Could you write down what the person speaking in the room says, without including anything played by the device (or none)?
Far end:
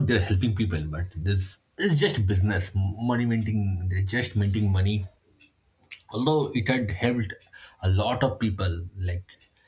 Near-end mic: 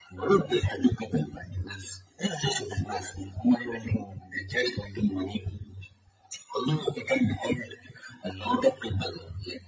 none